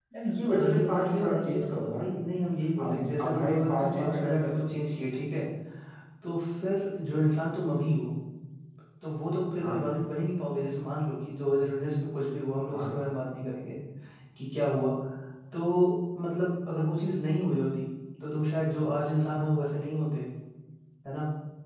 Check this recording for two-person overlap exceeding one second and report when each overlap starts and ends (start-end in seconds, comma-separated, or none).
0.5-2.0, 2.8-4.6